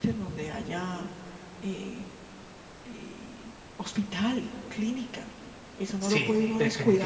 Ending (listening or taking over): taking over